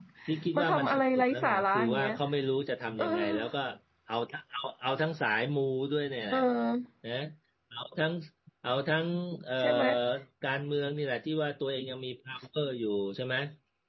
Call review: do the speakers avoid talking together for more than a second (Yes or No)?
No